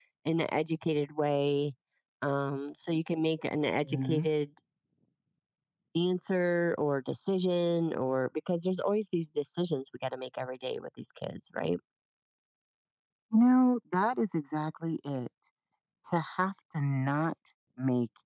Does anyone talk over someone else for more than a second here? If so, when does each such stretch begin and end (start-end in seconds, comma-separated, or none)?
none